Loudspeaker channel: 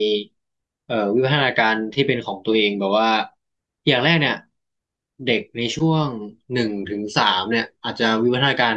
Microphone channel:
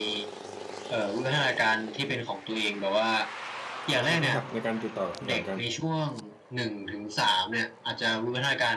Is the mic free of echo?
No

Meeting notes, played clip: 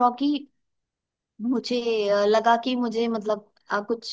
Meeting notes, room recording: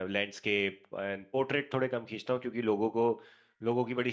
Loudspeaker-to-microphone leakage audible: No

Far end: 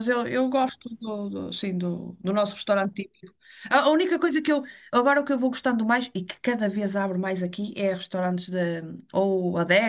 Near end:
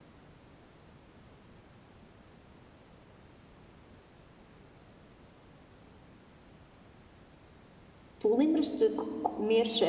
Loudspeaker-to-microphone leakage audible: No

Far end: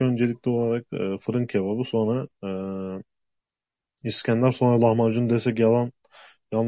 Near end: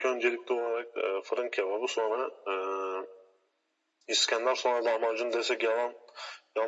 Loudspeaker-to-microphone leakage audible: Yes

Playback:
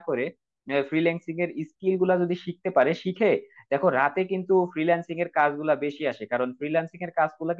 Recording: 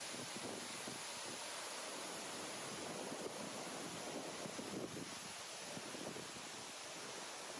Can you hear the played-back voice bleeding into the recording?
No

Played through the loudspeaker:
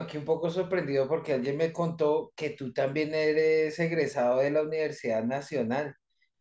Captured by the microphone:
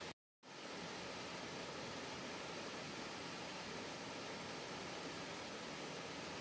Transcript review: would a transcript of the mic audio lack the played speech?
Yes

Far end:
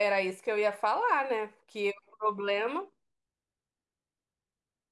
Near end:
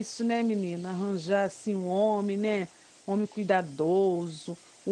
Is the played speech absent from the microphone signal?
Yes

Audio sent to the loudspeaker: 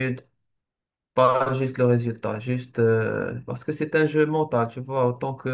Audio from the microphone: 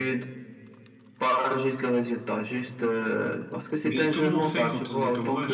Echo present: Yes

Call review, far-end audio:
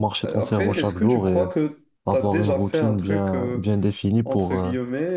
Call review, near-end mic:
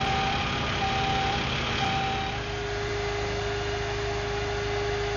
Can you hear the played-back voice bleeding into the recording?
No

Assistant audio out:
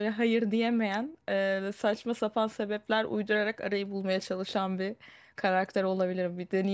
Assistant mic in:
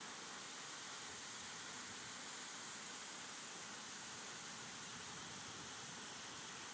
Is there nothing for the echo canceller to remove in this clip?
Yes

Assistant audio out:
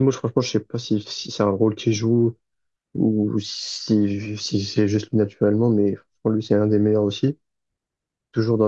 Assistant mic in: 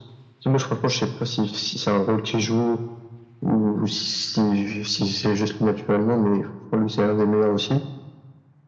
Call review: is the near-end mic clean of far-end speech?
No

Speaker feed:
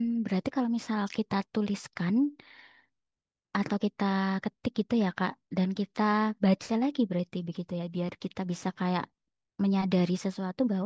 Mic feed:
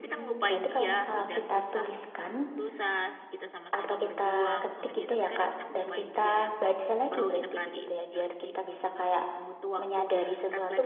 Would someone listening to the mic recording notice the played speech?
Yes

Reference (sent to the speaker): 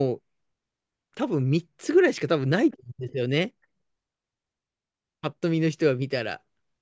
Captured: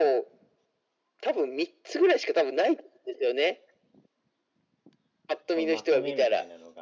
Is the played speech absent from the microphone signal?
No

